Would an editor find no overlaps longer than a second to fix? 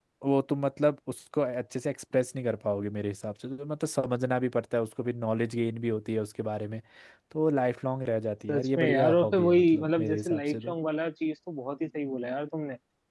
No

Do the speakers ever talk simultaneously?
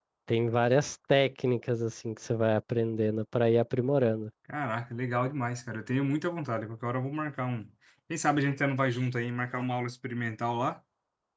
No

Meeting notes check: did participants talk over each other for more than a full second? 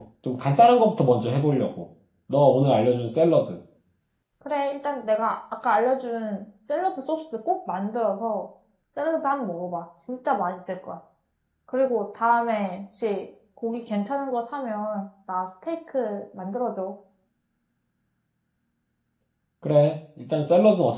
No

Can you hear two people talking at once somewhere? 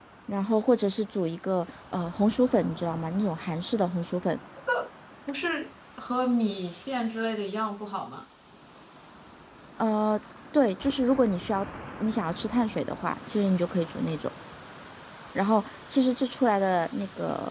No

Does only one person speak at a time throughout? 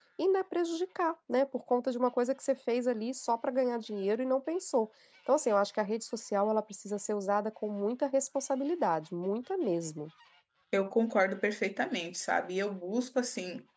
Yes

